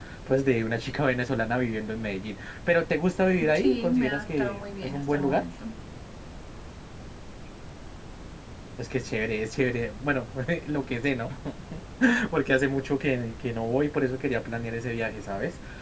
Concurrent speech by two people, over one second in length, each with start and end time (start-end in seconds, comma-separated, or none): 3.5-5.4